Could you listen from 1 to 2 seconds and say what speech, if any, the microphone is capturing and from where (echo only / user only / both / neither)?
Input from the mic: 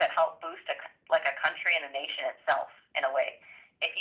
echo only